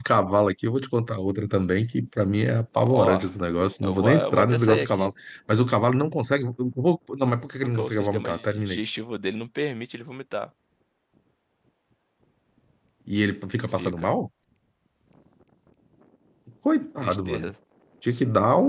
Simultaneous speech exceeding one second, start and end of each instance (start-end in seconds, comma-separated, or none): 3.8-5.1, 7.6-8.8